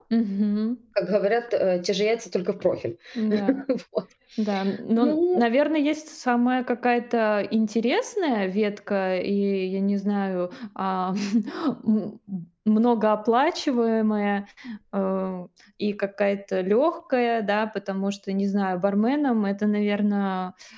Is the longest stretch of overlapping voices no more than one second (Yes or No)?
Yes